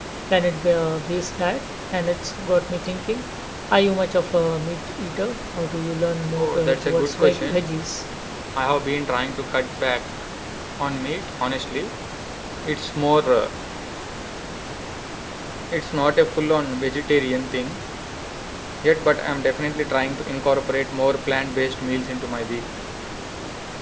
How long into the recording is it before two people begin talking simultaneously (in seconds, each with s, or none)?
6.3 s